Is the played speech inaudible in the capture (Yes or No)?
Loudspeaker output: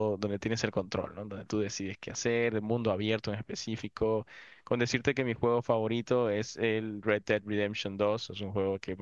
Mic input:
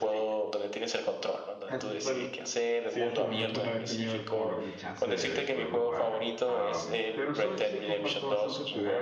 No